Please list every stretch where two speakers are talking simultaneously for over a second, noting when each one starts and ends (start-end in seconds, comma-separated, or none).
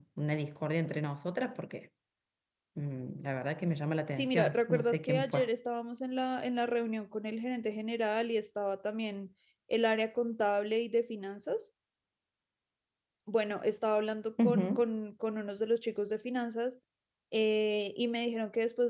4.1-5.4